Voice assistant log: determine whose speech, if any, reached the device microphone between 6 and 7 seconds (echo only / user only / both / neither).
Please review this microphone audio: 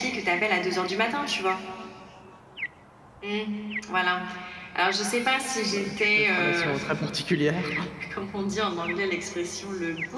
both